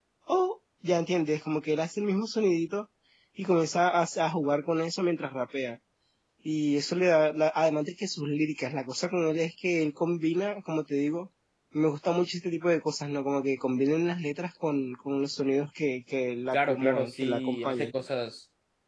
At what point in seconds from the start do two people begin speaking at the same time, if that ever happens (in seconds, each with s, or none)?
16.5 s